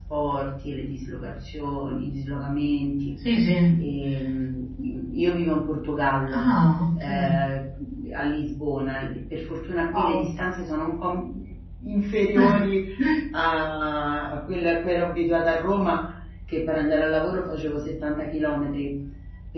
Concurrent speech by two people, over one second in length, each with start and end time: none

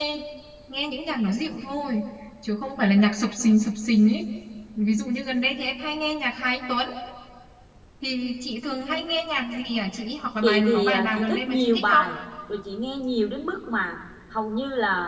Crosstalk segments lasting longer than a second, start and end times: 10.4-12.0

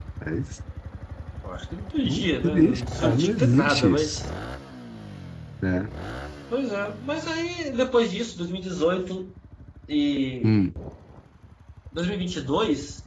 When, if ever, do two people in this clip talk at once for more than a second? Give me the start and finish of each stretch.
2.0-4.2

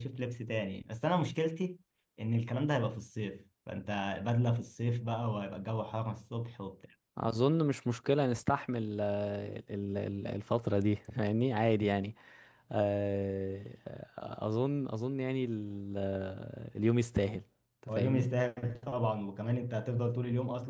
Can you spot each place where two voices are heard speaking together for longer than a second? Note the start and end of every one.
none

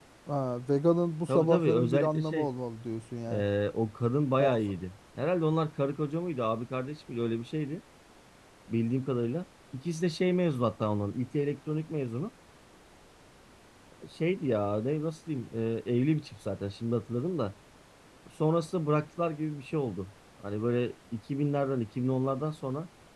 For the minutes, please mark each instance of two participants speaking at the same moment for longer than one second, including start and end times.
1.3-2.5

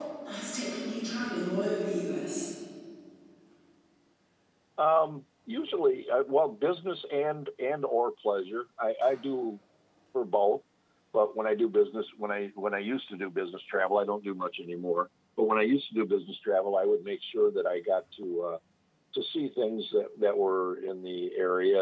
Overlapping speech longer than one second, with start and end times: none

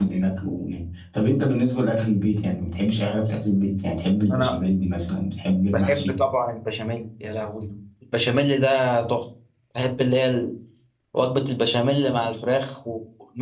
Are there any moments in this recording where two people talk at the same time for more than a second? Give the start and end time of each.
none

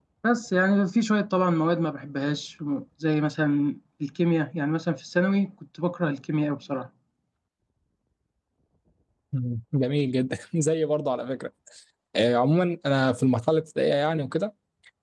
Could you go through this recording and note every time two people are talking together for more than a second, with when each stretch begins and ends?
none

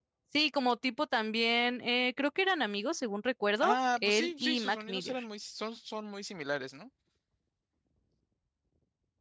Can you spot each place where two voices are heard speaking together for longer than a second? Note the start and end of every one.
3.6-5.2

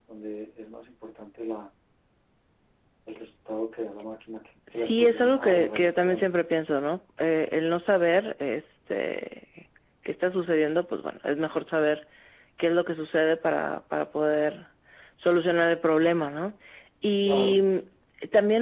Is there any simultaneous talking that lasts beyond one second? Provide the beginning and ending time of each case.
4.7-6.3

